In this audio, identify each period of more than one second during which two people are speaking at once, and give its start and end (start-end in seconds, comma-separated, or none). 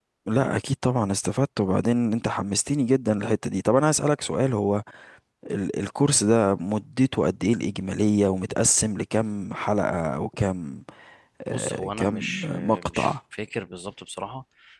11.5-13.1